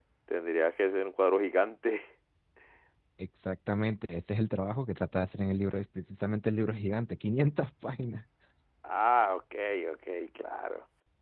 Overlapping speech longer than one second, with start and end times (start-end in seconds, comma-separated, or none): none